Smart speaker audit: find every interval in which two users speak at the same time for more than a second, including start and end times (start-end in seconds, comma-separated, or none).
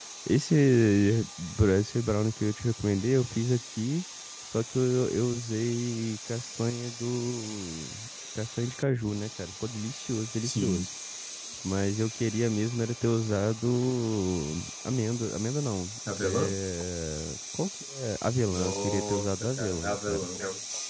18.5-20.3